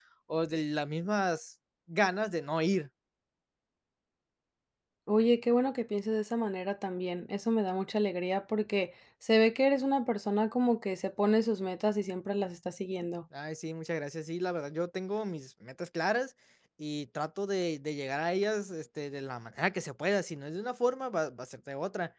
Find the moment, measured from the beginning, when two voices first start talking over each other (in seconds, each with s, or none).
none